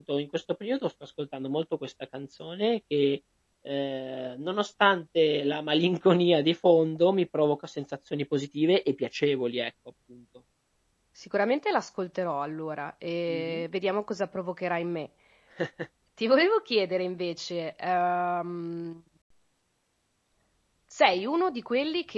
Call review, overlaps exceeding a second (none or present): none